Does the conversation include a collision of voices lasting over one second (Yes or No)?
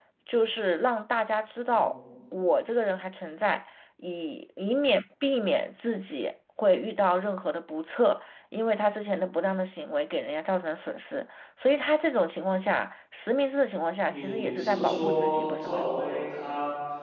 Yes